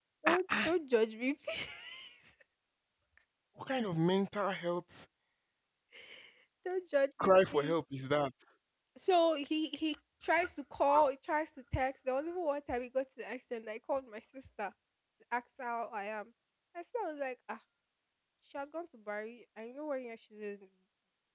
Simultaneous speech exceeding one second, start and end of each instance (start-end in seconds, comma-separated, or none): none